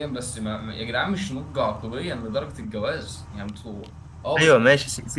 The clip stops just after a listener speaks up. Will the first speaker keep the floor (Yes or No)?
No